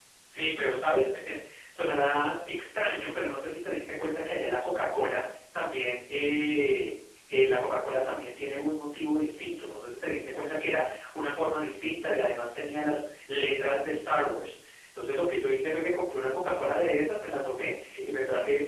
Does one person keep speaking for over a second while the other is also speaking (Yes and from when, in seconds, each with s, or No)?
No